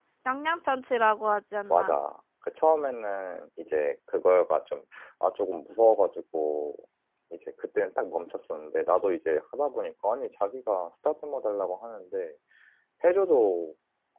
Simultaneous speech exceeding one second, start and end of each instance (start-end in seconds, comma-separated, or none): none